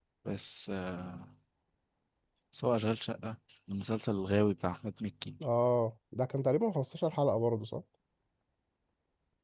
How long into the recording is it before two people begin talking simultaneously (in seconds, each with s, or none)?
none